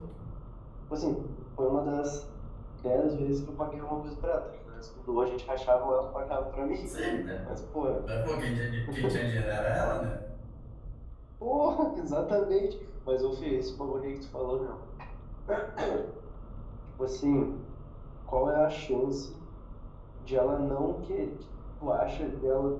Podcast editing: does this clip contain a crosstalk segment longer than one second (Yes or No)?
No